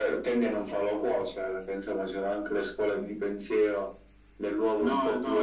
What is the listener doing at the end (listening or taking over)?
taking over